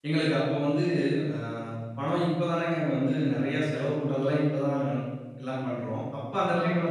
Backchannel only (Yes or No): Yes